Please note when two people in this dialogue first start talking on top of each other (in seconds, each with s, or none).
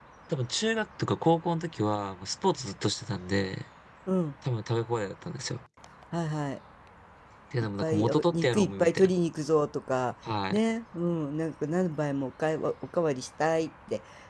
7.8 s